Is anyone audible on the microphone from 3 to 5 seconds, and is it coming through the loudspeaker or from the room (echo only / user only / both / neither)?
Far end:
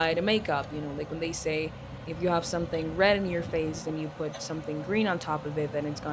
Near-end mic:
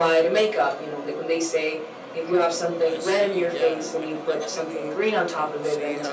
both